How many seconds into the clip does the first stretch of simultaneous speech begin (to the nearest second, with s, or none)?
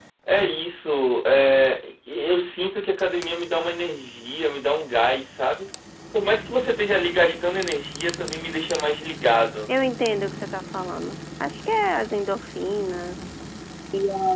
none